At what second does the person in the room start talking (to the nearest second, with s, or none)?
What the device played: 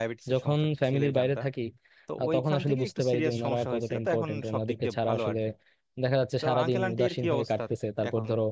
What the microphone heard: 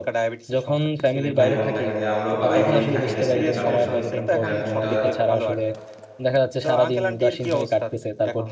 1 s